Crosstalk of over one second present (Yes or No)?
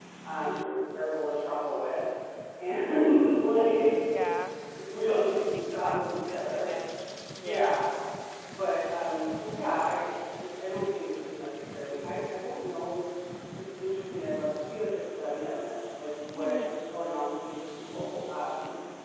Yes